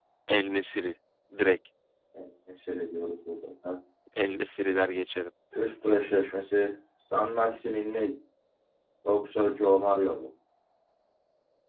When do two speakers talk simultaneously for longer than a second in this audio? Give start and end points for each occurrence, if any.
none

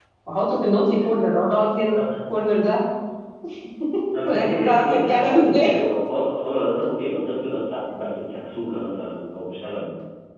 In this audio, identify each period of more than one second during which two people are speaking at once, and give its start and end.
4.3-5.7

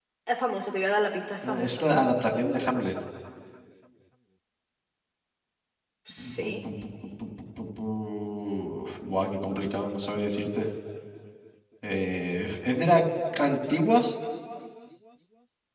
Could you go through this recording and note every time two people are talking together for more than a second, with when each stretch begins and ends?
none

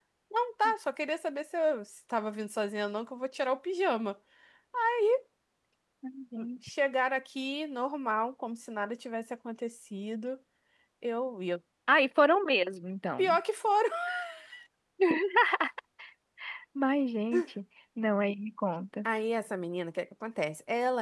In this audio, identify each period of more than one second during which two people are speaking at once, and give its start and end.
none

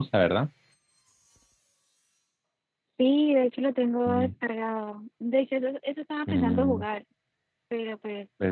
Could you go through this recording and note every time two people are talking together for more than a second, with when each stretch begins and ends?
none

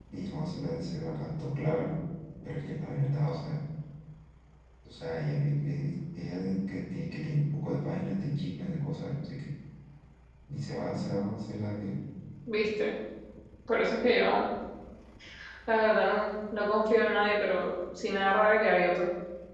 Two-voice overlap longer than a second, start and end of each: none

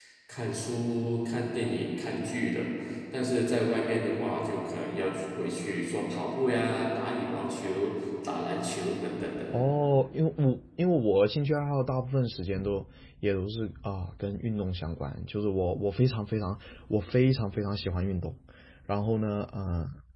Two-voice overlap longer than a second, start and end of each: none

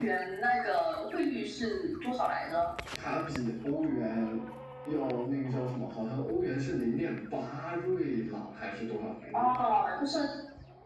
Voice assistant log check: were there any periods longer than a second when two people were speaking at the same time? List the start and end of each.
none

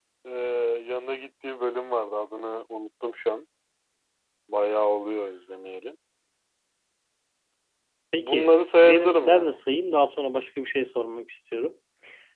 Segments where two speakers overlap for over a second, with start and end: 8.2-9.6

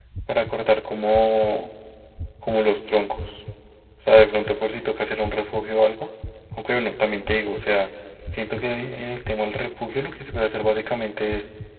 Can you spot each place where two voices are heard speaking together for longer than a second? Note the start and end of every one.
none

